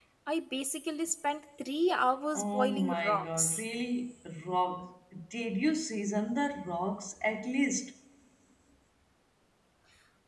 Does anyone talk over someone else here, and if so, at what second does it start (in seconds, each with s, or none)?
2.3 s